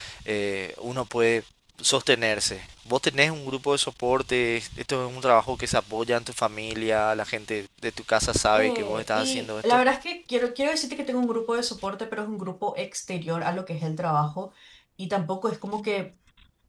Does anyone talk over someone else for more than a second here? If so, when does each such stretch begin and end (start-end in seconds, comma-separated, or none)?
8.5-9.8